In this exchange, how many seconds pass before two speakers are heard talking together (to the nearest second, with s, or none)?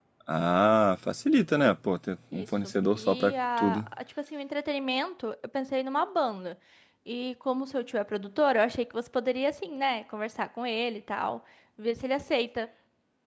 2 s